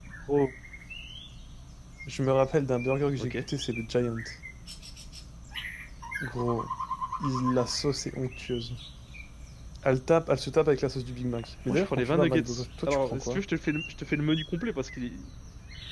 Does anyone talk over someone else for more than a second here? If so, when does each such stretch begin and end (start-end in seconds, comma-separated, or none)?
11.7-13.4